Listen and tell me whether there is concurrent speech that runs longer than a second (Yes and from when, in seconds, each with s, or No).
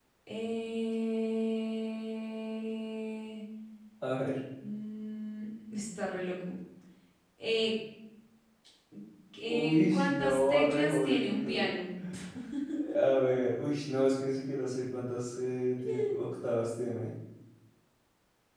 Yes, from 9.5 s